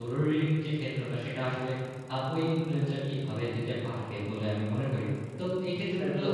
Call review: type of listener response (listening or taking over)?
listening